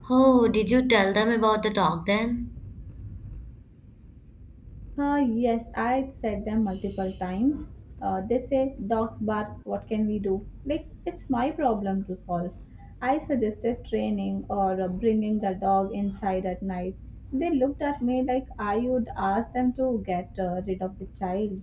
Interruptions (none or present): none